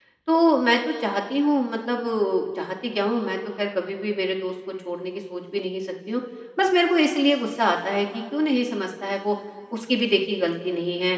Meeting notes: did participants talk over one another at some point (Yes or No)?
No